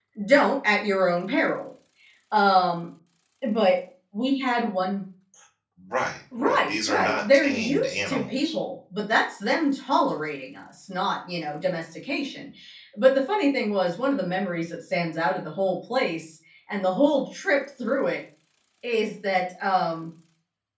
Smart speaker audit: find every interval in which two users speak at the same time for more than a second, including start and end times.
6.4-8.6

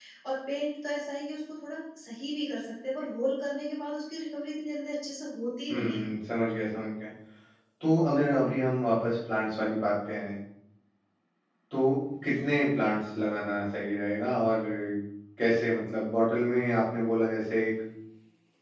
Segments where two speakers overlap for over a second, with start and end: none

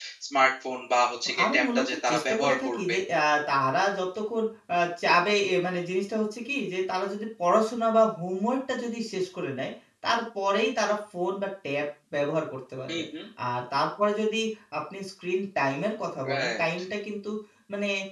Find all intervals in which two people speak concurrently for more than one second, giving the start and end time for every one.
1.4-2.9

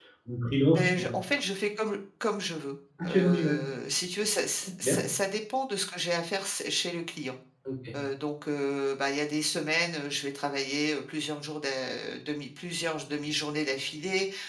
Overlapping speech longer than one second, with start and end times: none

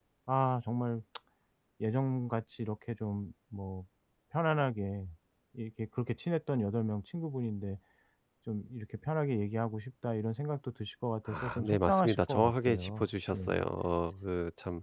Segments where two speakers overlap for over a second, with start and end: 11.3-13.6

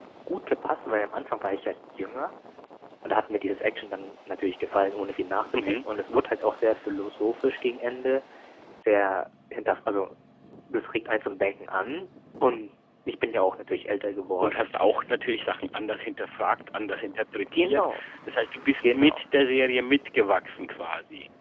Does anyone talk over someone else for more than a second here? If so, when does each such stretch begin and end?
none

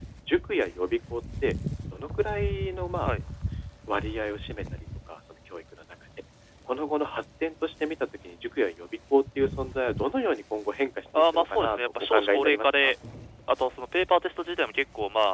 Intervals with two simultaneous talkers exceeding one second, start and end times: 11.2-12.9

